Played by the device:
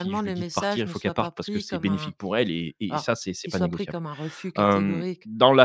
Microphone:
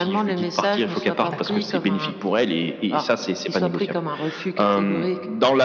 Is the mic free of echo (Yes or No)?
No